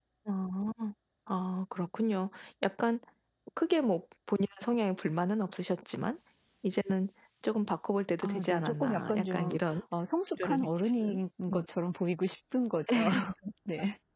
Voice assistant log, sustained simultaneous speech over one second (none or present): present